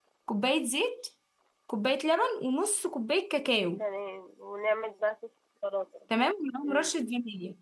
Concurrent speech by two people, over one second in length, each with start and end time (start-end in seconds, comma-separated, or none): none